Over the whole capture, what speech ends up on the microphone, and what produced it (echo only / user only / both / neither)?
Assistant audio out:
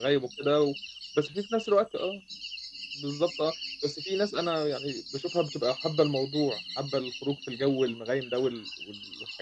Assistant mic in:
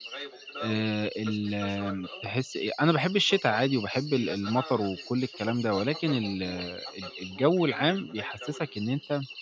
both